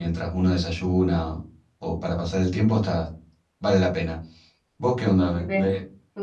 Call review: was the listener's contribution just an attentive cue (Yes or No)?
No